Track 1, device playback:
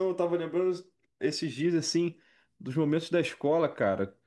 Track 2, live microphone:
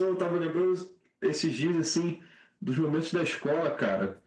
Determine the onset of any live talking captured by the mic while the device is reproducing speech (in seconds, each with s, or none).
none